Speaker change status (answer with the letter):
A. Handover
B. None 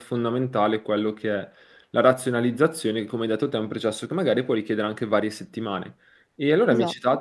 B